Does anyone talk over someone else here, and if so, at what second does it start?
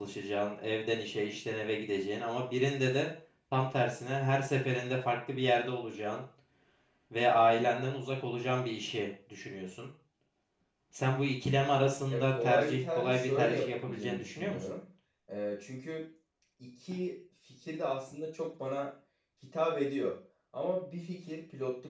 12.1 s

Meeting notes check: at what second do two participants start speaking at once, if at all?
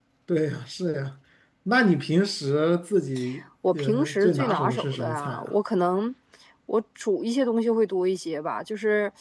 3.7 s

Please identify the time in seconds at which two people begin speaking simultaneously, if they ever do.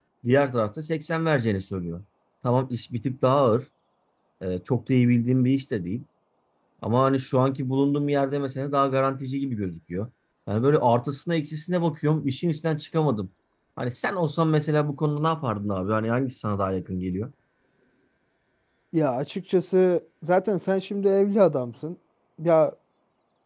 none

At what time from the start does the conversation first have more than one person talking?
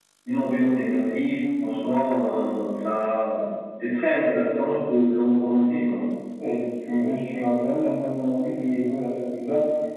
none

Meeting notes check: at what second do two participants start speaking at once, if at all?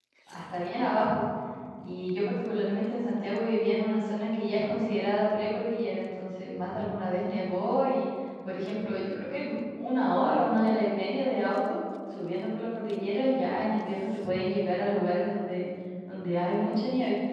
none

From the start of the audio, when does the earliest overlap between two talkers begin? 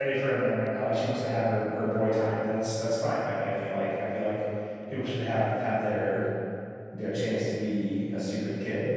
none

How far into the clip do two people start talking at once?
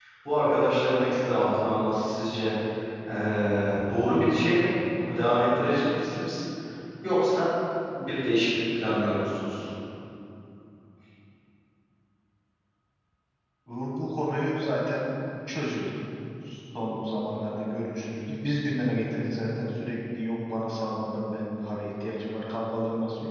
none

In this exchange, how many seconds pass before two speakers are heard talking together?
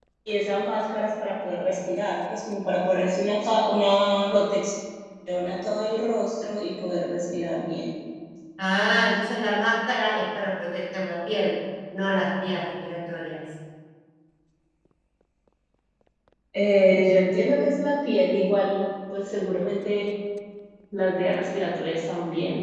none

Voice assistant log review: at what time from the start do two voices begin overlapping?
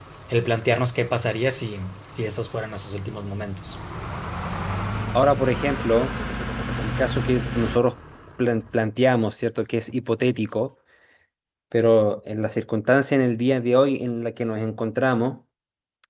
none

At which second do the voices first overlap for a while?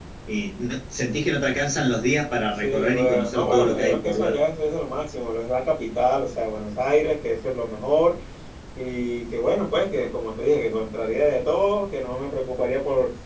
2.6 s

